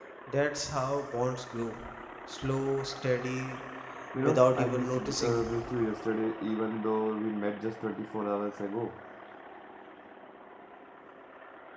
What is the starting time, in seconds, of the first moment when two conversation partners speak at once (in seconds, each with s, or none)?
4.2 s